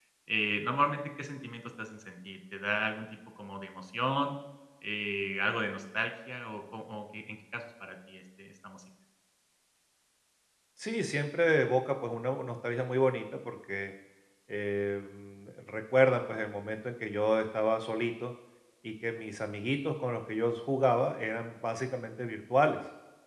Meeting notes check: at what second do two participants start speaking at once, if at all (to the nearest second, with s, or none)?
none